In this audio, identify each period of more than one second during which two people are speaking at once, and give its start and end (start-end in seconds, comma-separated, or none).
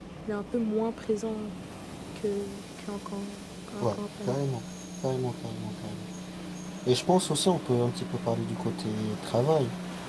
none